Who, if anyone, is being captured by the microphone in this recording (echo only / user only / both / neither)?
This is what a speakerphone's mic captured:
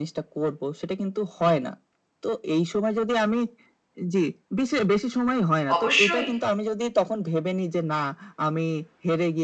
both